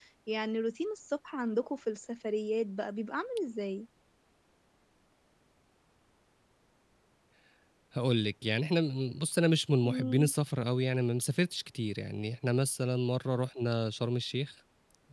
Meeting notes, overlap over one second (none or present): none